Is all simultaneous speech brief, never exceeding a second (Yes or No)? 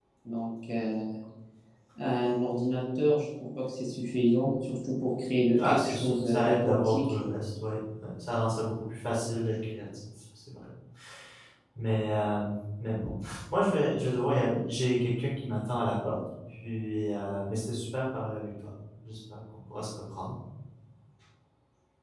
No